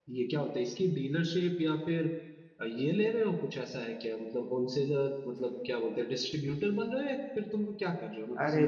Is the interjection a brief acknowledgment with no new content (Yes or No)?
No